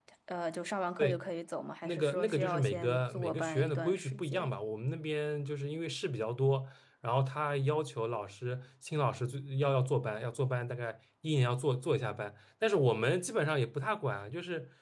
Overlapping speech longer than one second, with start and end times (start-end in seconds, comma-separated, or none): 1.9-4.6